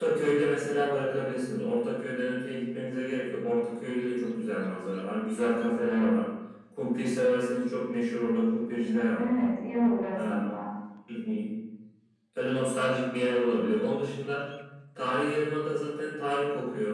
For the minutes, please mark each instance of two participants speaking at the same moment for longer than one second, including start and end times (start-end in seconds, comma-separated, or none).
none